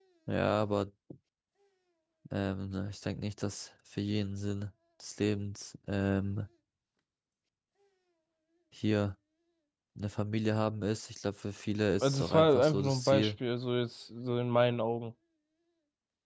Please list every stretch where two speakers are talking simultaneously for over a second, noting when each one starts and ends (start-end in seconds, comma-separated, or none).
12.0-13.3